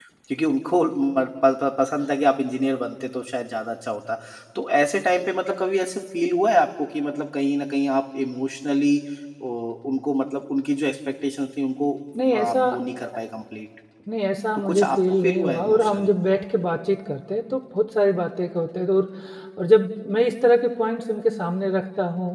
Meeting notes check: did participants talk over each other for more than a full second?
Yes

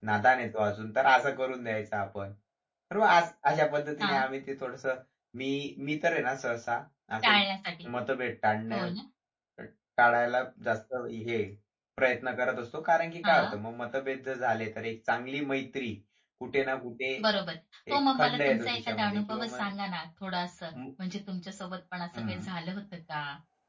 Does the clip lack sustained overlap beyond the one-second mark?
No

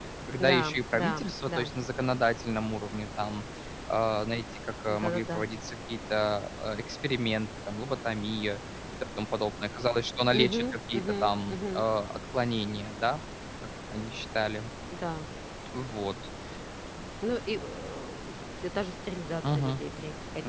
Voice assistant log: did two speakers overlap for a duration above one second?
Yes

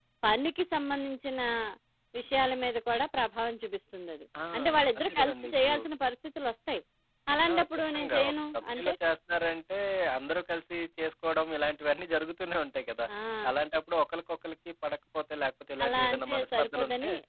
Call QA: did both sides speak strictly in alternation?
No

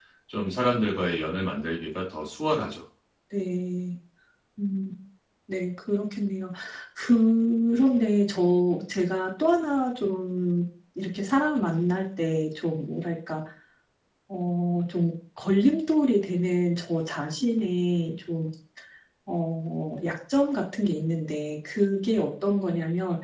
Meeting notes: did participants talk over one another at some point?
No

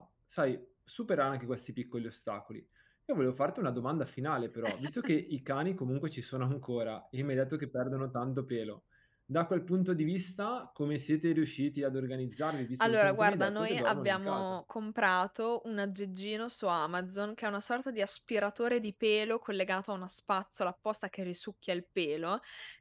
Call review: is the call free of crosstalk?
No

